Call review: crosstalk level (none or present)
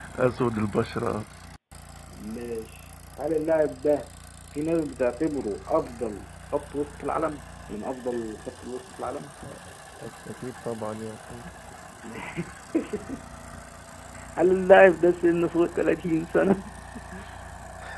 none